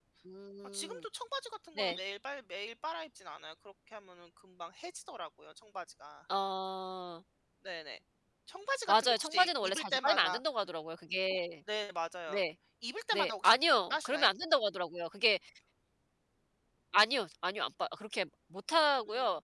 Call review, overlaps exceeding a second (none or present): present